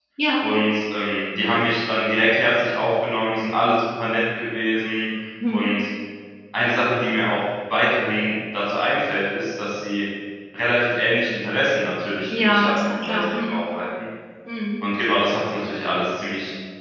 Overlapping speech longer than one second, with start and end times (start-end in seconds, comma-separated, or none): 12.4-13.6